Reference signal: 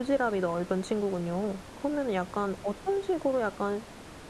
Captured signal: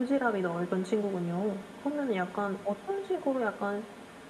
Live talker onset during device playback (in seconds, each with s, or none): none